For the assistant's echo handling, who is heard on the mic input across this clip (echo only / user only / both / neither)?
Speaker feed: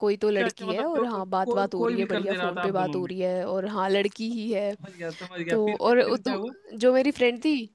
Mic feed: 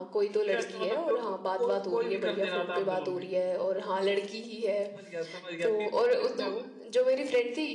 echo only